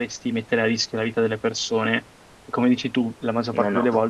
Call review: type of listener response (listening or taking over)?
listening